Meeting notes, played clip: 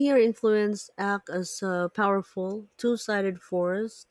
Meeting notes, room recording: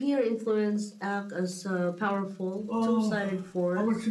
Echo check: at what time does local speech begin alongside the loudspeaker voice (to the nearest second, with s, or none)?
3 s